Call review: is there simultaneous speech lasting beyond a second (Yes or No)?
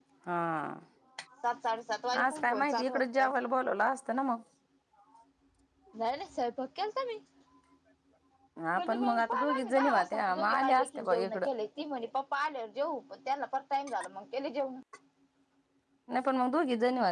Yes